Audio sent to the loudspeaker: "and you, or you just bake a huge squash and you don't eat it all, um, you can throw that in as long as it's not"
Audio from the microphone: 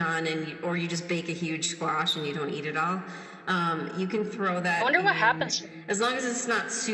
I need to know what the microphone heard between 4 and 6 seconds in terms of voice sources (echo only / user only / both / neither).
both